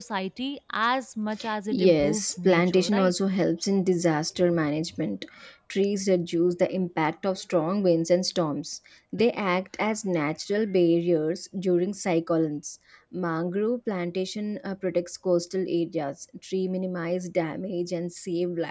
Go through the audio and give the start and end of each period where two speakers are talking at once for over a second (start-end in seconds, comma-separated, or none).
1.7-3.1